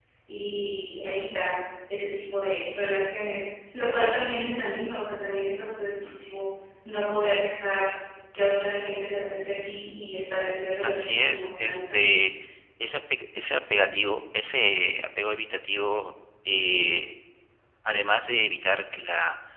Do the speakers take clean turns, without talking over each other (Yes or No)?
No